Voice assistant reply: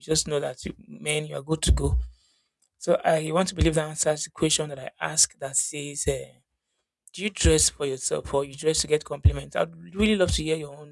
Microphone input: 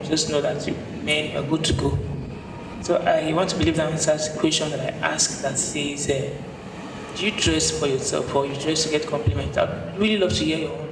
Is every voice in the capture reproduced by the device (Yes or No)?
Yes